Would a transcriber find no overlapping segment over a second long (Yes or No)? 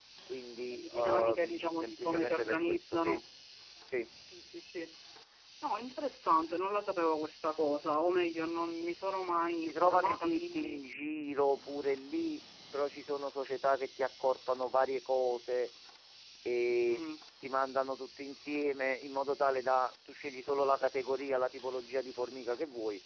No